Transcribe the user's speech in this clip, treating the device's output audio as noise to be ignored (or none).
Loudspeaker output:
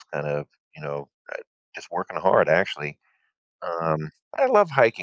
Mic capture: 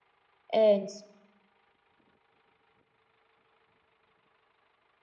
And